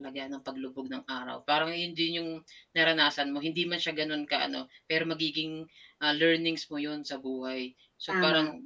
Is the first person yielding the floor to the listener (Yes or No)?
No